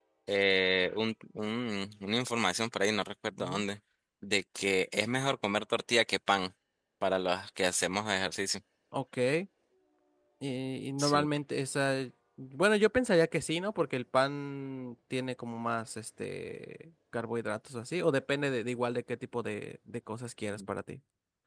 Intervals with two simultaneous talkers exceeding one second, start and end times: none

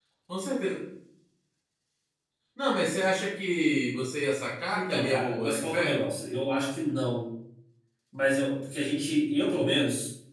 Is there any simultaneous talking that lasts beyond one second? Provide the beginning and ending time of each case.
4.7-6.1

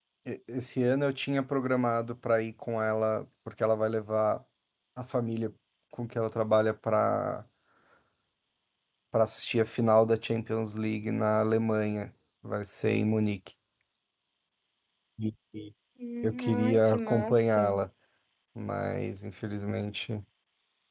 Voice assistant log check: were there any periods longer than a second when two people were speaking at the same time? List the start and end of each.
16.2-17.6

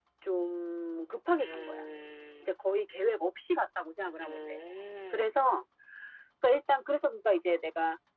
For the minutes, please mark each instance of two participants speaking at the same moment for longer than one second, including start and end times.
none

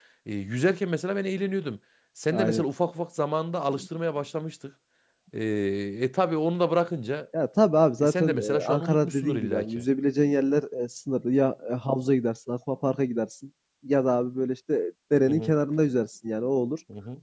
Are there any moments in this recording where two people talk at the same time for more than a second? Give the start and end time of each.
8.0-9.8

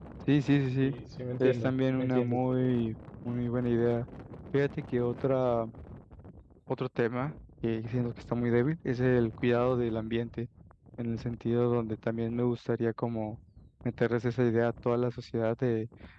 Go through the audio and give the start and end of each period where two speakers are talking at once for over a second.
1.4-2.7

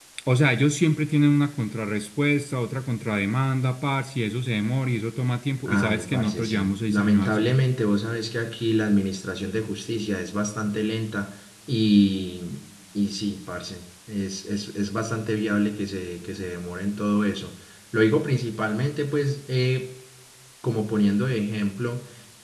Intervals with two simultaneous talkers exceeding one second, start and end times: 5.7-7.5

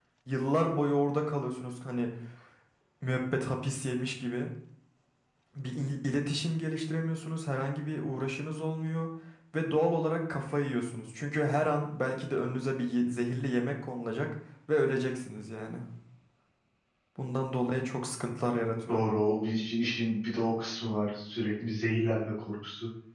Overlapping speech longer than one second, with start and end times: none

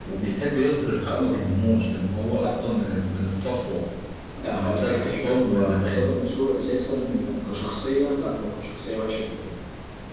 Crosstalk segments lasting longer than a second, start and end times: 4.5-6.1

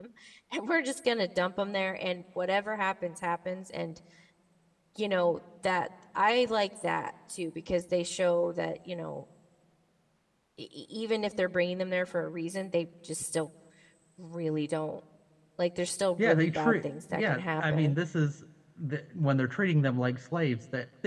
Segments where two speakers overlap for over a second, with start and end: 16.2-17.9

